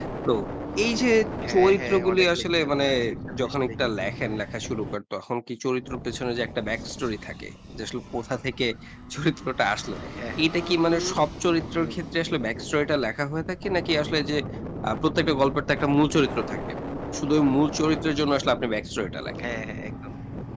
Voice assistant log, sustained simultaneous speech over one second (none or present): present